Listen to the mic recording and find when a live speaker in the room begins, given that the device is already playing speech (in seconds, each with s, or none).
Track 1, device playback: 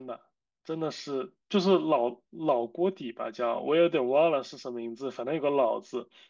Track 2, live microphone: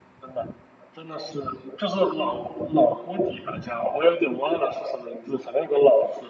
none